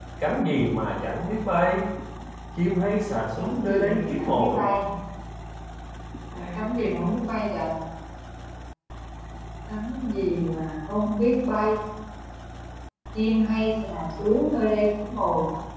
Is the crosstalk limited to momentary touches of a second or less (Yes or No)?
No